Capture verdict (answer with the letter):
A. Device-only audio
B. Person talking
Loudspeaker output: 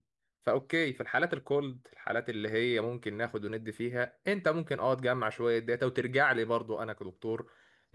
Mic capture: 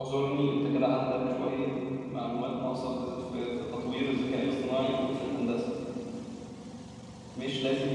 B